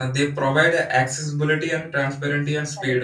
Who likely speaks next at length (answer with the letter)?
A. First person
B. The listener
B